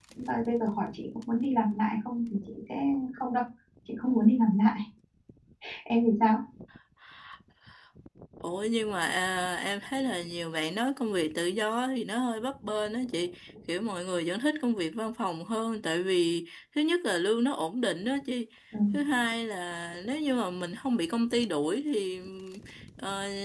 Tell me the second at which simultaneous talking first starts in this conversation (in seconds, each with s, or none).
none